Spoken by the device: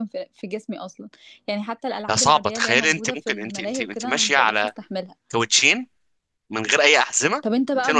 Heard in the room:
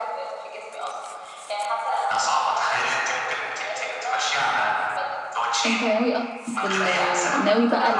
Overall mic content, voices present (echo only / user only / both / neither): both